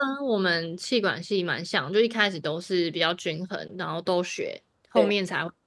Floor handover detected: No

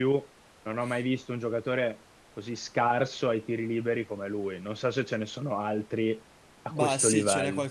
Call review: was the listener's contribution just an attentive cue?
No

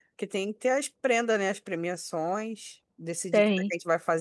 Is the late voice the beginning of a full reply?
No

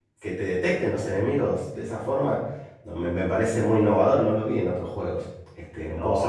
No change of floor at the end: No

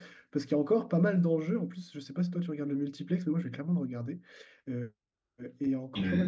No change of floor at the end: Yes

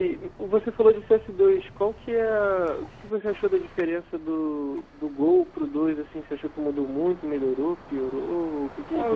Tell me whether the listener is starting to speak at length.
Yes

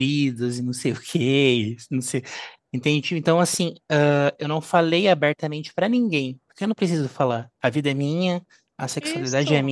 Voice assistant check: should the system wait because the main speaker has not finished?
Yes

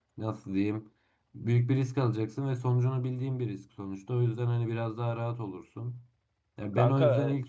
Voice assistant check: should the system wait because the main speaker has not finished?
No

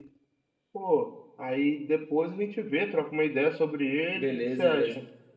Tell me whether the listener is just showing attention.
No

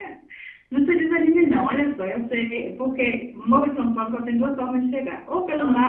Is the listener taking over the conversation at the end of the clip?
No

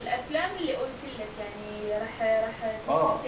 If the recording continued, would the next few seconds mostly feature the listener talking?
Yes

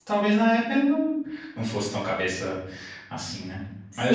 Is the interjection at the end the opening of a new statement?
Yes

